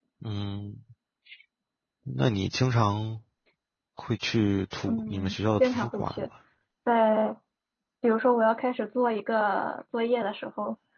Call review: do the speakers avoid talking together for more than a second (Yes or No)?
No